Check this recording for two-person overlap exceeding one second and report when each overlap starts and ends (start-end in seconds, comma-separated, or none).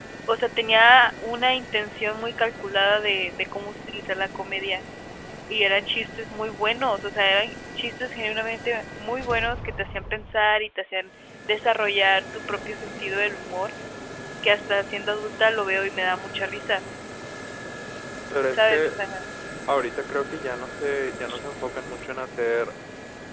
none